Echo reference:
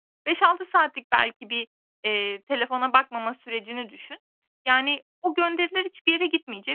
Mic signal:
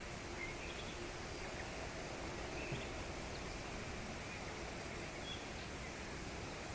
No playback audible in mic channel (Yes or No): Yes